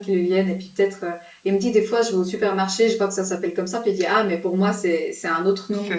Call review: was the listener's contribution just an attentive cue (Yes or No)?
No